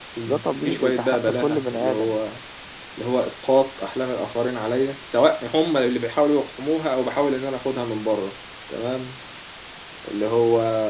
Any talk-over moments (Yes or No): Yes